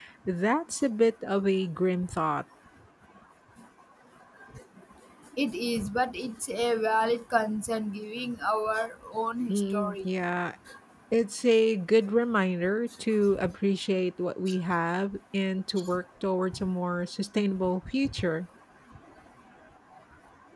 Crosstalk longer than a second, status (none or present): none